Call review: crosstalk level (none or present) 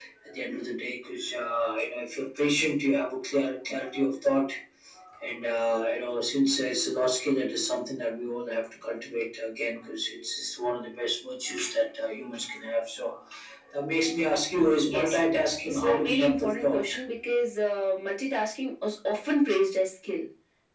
present